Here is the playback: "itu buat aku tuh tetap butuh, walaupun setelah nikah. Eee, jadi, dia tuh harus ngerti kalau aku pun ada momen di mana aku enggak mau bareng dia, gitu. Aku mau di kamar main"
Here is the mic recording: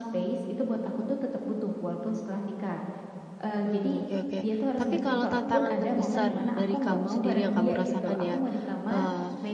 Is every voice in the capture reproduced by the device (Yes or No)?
No